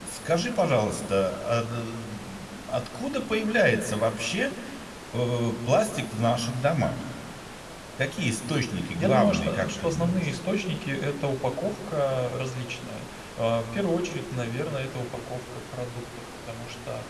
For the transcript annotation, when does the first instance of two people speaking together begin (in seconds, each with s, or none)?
9.0 s